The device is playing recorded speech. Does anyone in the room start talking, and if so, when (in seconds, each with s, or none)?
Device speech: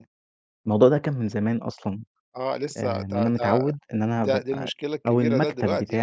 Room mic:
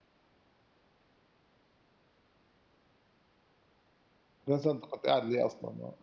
4.5 s